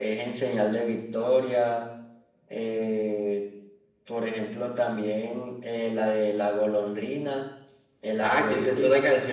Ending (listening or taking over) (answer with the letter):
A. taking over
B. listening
A